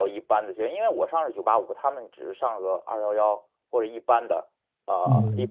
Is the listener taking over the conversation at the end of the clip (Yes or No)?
No